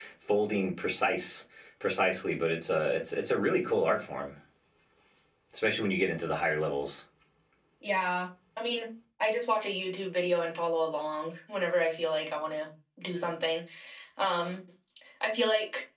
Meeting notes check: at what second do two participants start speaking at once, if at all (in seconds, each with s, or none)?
none